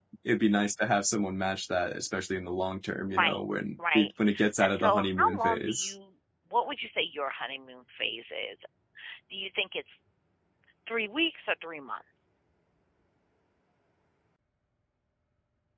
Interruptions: present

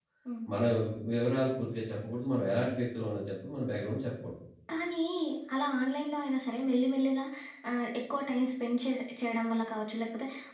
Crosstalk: none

